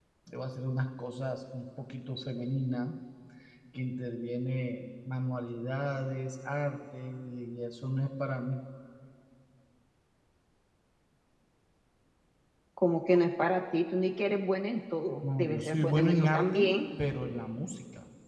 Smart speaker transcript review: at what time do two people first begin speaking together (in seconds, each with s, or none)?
15.2 s